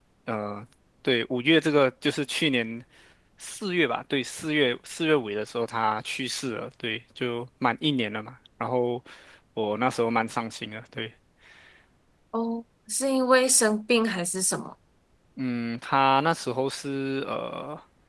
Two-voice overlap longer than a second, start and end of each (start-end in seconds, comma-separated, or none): none